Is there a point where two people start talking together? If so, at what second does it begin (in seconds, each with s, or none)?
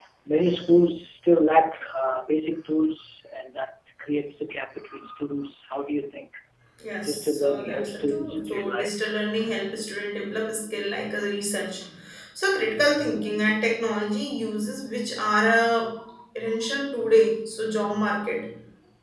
7.1 s